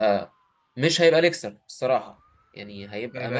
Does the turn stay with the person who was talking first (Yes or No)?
Yes